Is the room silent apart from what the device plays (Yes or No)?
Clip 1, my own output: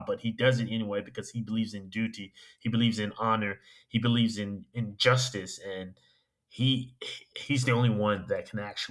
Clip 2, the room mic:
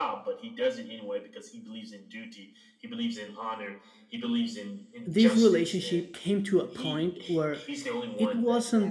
No